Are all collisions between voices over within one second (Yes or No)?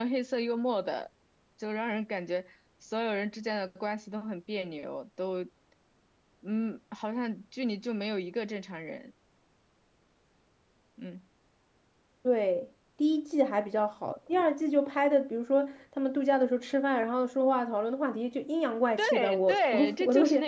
No